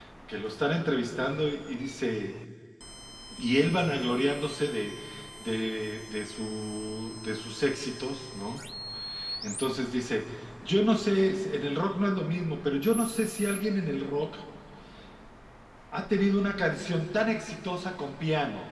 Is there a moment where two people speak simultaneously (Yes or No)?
No